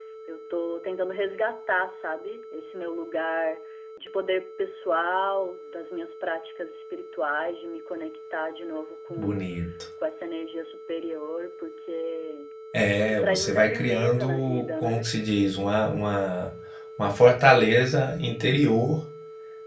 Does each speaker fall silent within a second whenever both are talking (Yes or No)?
No